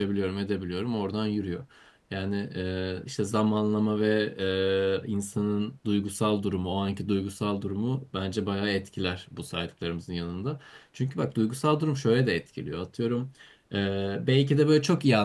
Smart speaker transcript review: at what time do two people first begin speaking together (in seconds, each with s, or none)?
none